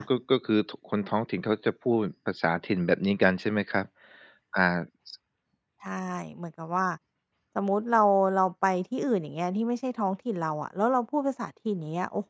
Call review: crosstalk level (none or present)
none